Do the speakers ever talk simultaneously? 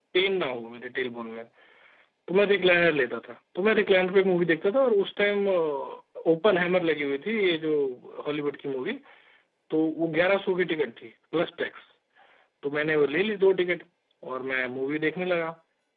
No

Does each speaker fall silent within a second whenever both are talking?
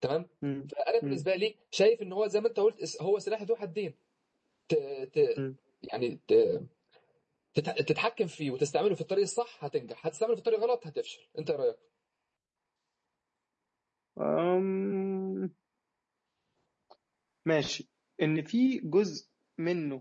Yes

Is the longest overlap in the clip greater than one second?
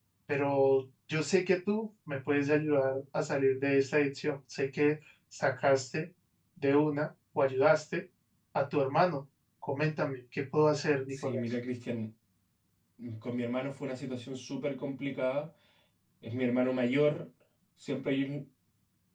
No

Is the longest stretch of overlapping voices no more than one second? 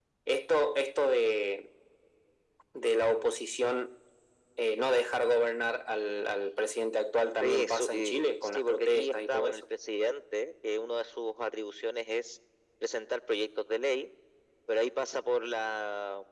No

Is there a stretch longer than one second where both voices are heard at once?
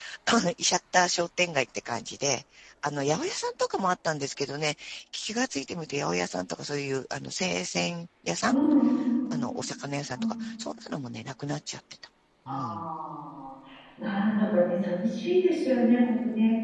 No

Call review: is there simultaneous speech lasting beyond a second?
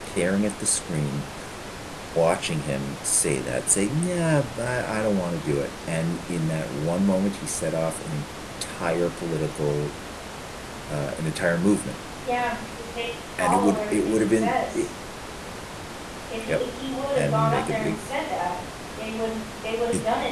Yes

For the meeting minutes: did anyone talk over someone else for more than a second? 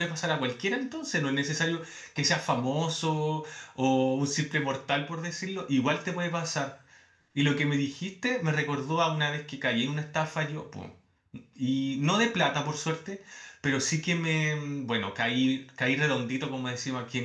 No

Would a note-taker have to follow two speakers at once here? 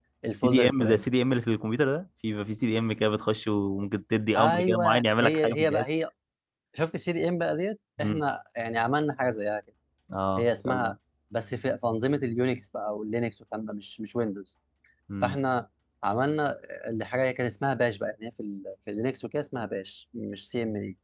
Yes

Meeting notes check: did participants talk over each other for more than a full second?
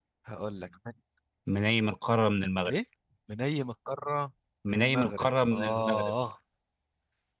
Yes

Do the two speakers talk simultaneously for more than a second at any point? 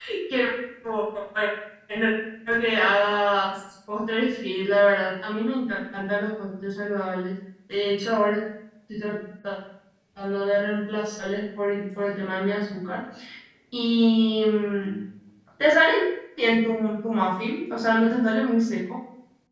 No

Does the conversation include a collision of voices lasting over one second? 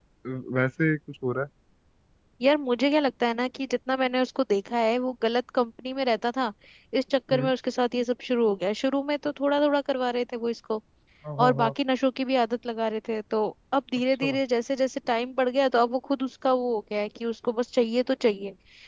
No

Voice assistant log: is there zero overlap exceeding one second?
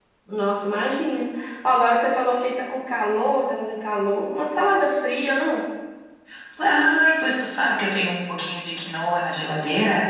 Yes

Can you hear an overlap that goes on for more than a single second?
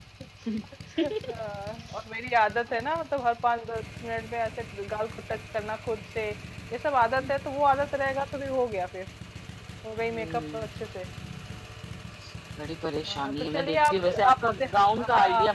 Yes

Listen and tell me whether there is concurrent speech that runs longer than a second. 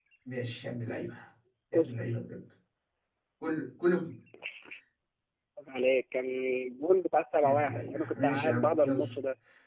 Yes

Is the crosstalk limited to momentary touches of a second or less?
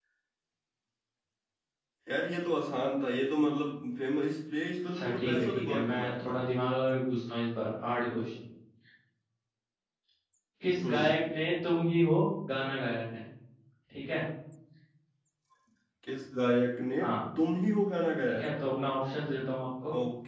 No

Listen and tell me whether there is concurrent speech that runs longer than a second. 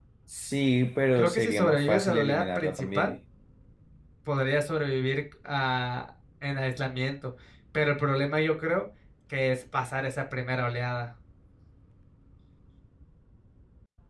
Yes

